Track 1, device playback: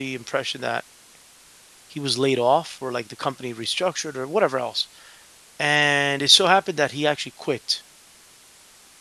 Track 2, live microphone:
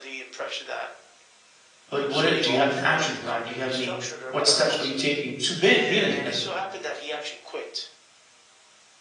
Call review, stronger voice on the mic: user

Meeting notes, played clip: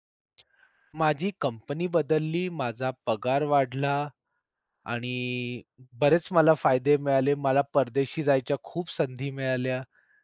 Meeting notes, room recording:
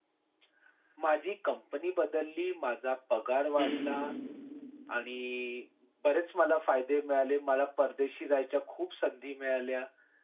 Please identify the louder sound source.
user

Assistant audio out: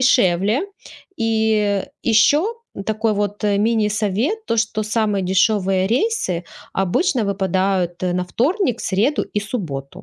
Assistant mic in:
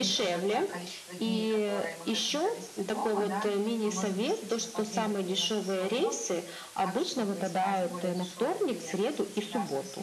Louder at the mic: echo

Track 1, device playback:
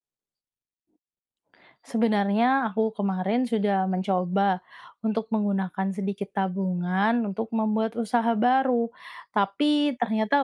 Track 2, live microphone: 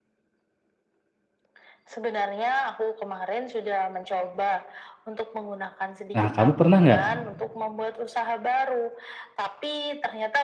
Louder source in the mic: user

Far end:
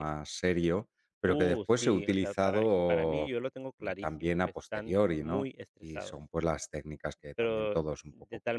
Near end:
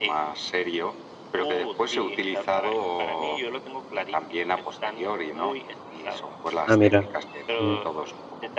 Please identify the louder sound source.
user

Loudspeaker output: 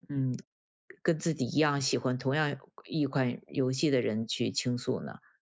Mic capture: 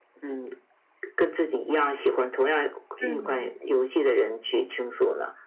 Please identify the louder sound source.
user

